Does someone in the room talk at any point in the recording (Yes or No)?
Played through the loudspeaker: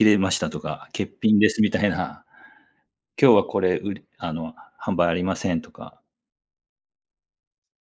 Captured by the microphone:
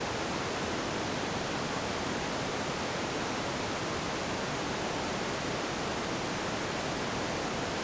No